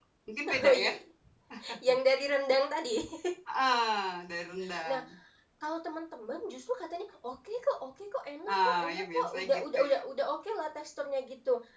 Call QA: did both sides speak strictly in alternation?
No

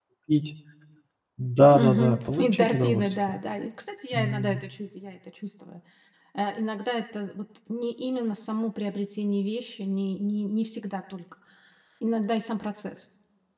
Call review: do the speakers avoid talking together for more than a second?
No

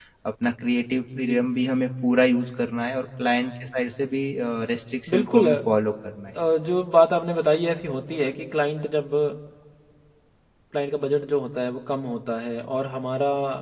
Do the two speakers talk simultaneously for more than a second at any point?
No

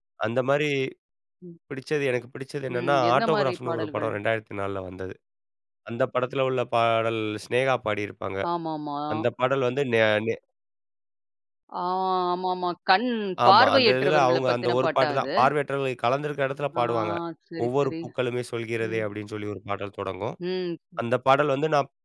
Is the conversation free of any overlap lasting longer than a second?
No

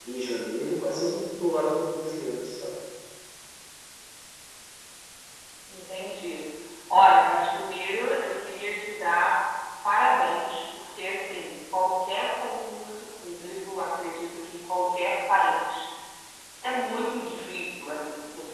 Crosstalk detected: No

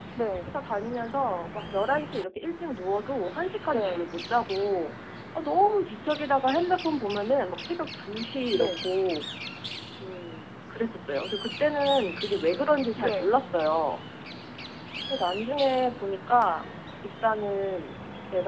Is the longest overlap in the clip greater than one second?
No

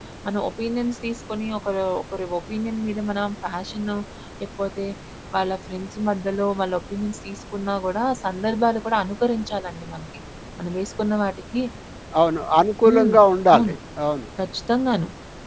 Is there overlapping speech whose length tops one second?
No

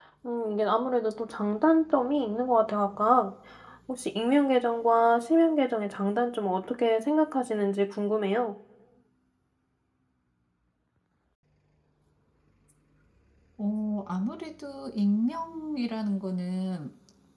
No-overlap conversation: Yes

